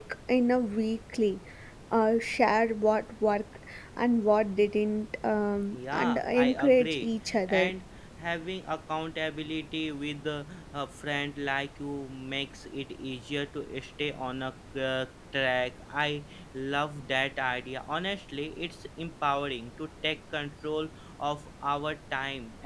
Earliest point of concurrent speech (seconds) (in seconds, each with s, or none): 5.7 s